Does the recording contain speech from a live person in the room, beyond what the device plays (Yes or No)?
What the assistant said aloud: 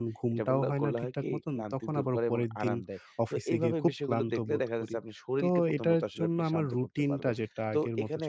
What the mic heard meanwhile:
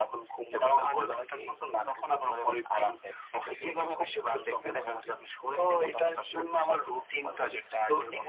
No